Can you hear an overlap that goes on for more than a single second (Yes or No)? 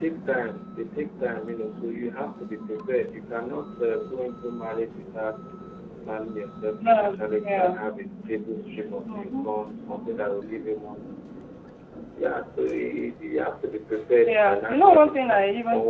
Yes